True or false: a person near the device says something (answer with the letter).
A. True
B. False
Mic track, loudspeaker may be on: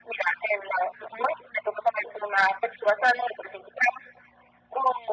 B